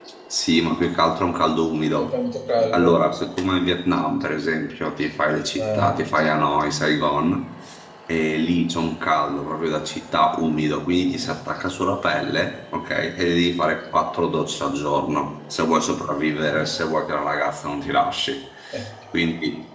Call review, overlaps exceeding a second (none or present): none